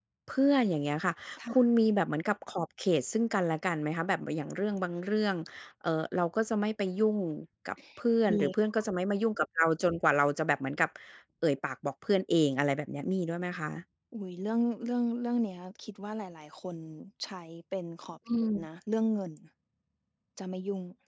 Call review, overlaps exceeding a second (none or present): none